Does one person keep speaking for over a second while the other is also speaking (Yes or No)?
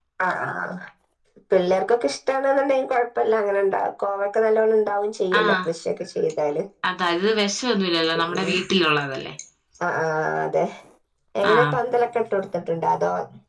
No